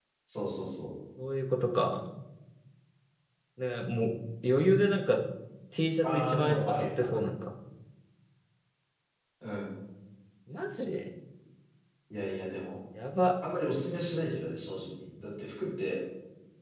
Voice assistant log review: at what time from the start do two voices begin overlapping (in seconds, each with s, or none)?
6.0 s